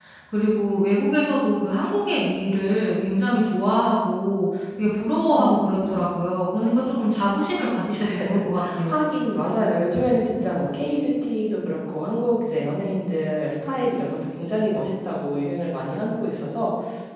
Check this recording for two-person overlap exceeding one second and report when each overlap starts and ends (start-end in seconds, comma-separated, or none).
none